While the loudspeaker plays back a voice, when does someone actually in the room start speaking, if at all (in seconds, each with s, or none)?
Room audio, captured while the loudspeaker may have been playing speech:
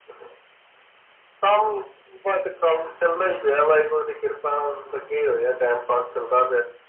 none